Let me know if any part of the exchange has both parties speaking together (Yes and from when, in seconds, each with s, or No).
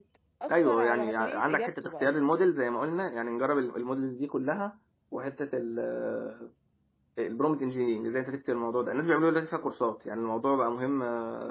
Yes, from 0.5 s